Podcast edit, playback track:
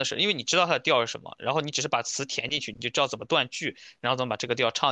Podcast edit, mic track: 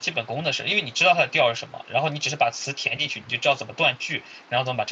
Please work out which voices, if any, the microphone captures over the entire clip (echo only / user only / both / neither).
echo only